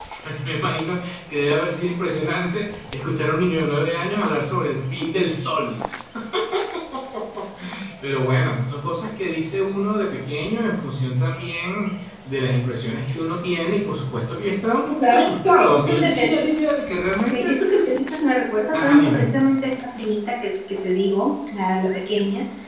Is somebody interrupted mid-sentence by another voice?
Yes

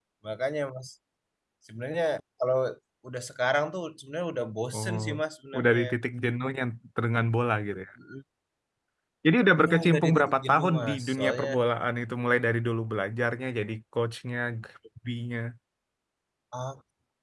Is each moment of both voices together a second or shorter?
No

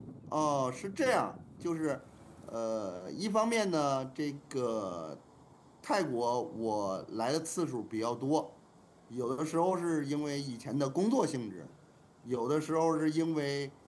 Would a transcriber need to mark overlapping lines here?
No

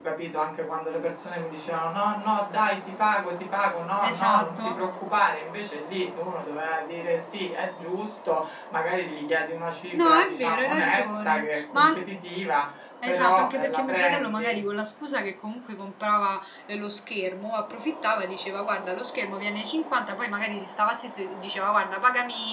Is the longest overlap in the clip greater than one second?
Yes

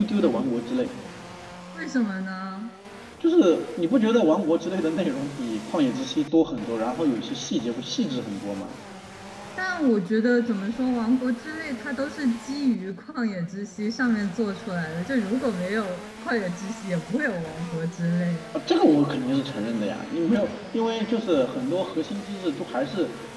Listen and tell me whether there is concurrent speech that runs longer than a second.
No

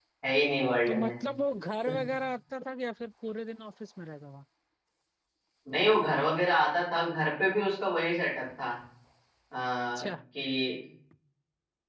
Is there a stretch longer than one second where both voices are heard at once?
No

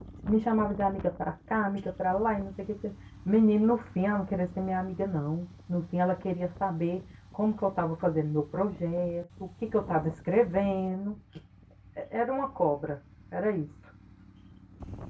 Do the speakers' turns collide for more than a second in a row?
No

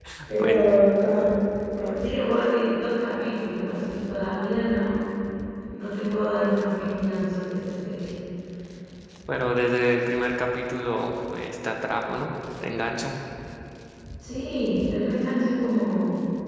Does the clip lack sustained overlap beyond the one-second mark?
Yes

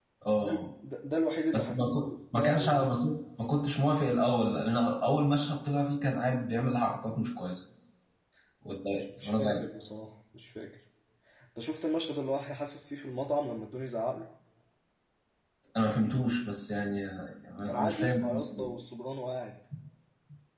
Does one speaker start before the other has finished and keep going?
Yes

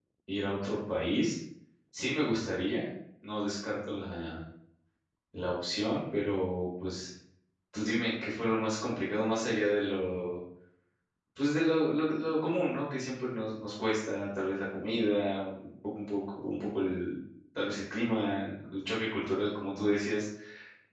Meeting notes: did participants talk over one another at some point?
No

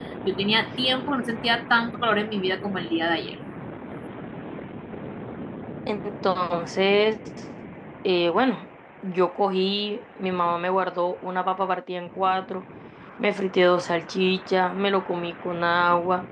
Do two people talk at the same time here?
No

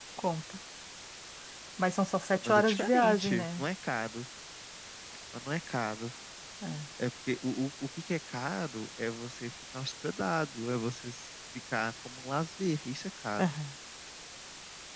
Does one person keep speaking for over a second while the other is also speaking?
Yes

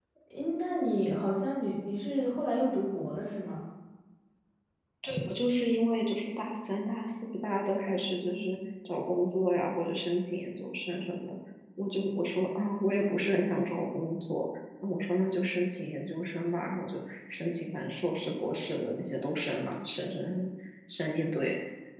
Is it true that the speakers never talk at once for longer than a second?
Yes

